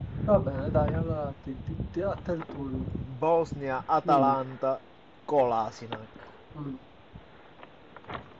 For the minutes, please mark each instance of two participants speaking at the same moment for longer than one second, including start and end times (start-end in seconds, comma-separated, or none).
none